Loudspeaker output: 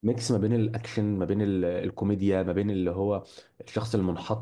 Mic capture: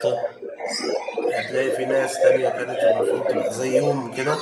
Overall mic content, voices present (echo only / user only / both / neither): both